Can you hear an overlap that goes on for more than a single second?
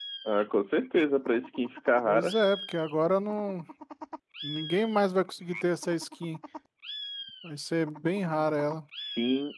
No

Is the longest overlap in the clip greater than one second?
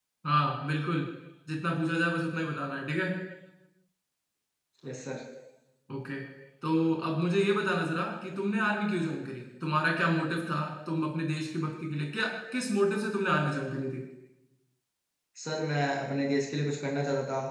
No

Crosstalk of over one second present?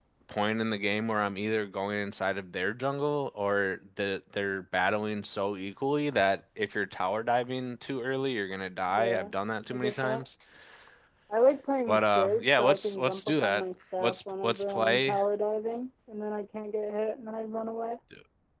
Yes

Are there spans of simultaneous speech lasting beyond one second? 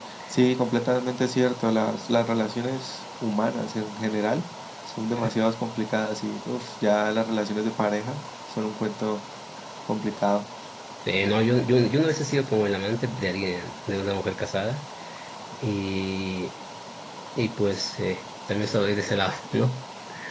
No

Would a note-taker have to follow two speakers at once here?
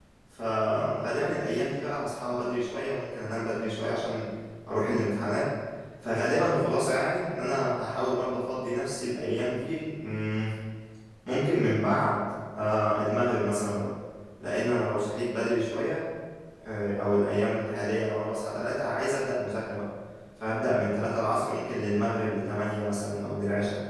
No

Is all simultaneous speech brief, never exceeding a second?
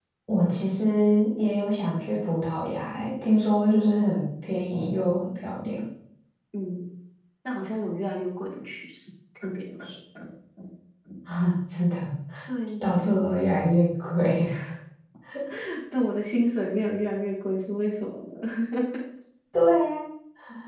Yes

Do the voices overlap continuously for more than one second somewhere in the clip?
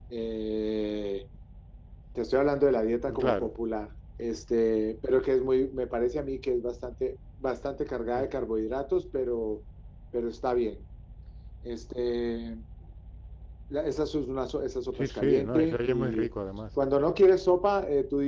Yes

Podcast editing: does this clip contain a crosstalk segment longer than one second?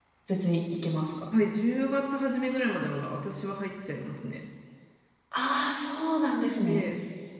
No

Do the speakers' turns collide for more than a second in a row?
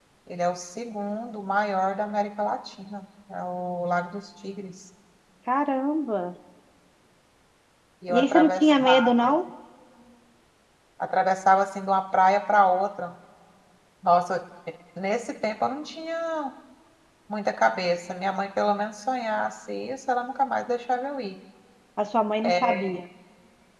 Yes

